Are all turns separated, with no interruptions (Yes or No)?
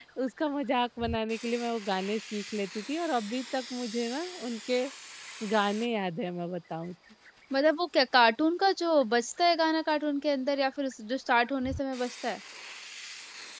Yes